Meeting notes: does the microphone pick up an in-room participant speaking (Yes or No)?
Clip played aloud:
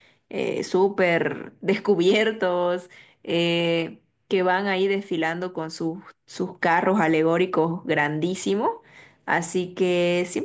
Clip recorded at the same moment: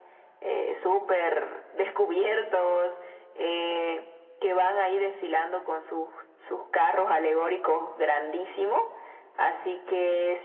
No